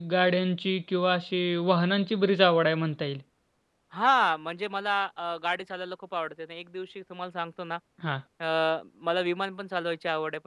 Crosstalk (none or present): none